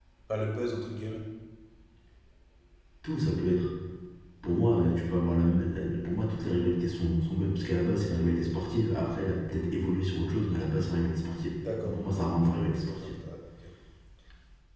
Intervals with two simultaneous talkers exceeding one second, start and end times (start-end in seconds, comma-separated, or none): 11.6-13.1